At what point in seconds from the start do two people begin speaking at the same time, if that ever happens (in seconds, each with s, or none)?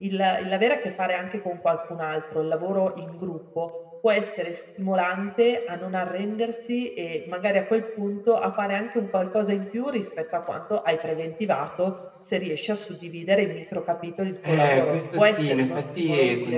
14.4 s